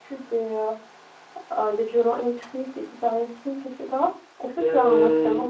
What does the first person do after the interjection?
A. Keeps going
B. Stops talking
B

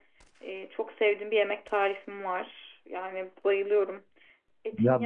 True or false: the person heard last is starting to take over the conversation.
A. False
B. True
B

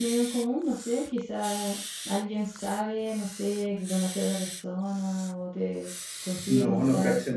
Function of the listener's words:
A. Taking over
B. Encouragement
A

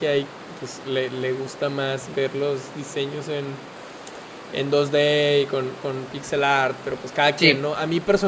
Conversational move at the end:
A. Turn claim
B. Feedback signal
B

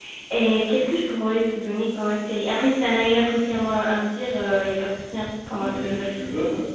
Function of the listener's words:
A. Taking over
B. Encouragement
A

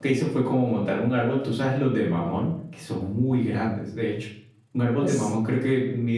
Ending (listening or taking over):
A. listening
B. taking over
A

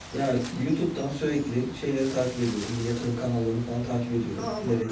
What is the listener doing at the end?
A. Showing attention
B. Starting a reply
B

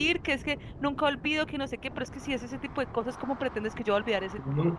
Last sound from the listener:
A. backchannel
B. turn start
B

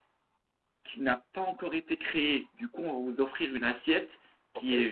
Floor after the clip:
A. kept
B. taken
A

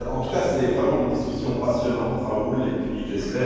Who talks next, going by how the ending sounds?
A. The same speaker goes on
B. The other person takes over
A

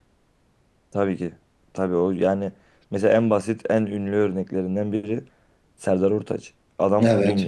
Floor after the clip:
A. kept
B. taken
A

